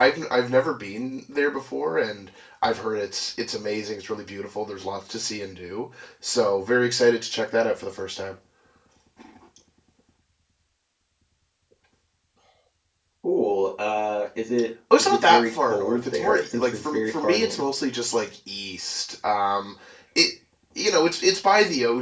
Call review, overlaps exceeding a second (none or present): present